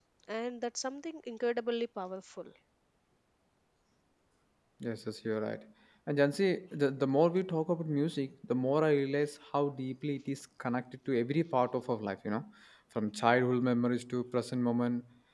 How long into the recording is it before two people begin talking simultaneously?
none

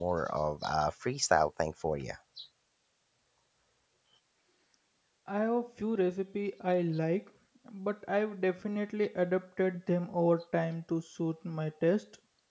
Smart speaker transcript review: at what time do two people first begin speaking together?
none

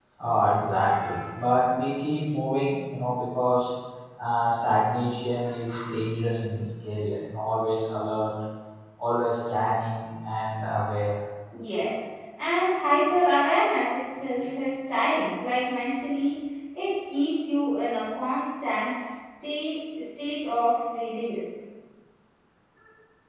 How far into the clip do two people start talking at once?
none

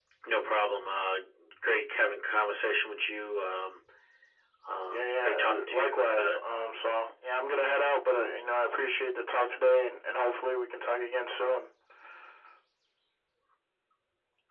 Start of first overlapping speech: 5 s

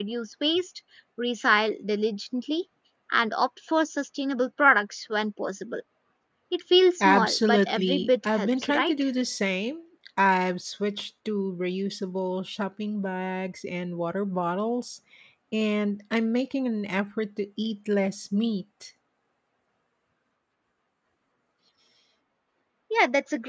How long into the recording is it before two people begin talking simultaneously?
7 s

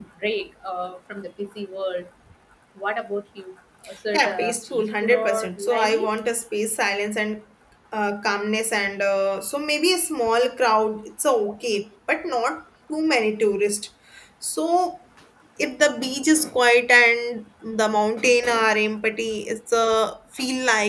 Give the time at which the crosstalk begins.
4 s

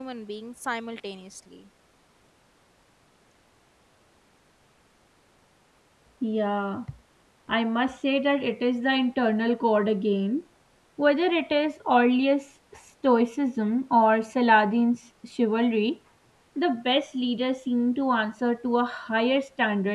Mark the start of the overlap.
none

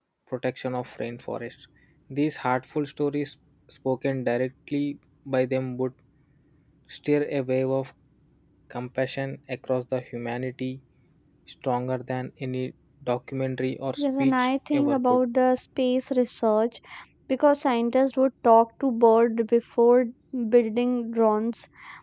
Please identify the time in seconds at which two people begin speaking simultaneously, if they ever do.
14 s

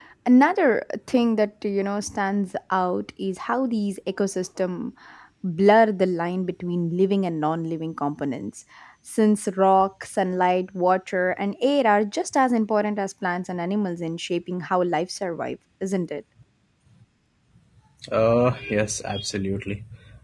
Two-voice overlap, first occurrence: none

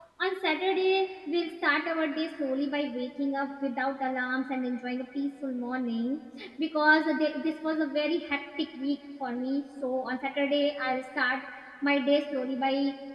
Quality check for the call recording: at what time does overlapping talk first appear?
none

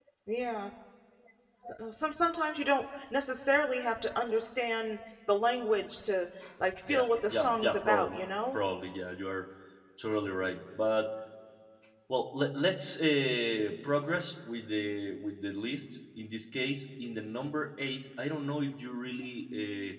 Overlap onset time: 7 s

